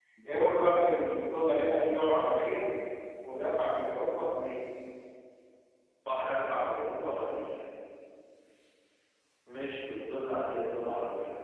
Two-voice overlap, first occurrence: none

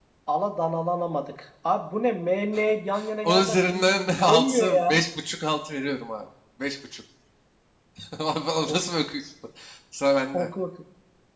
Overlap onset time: 3 s

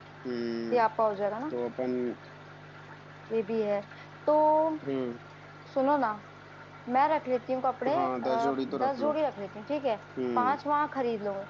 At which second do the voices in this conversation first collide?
8 s

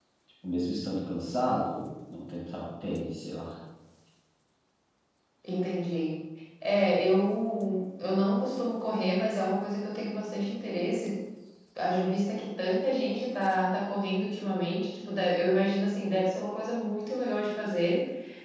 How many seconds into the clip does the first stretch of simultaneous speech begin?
none

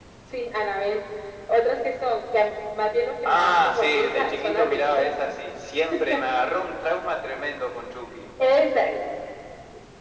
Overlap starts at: 3 s

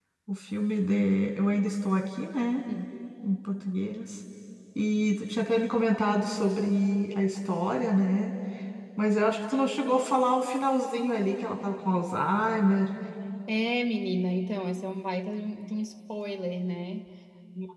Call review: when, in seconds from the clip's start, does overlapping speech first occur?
none

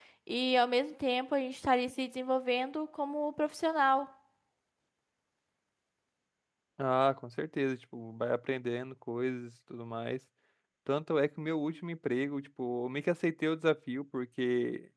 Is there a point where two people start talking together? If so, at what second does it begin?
none

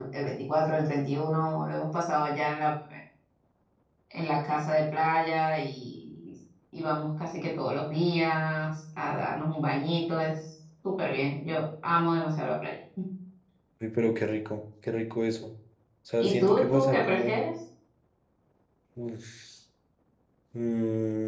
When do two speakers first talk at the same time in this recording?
16 s

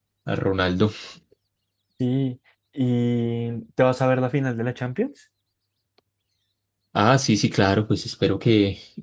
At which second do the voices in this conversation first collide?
none

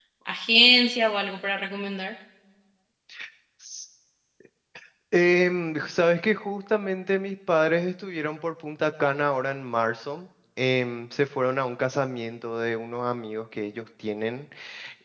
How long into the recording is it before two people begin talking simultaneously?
none

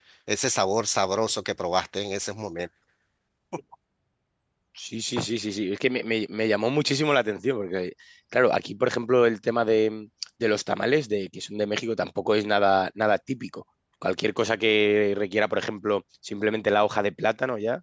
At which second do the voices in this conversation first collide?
none

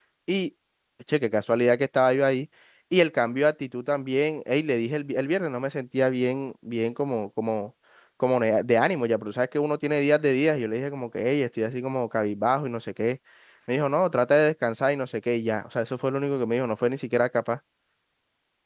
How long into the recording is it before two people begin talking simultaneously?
none

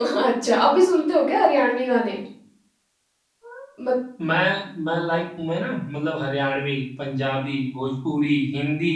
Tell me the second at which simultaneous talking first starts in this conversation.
none

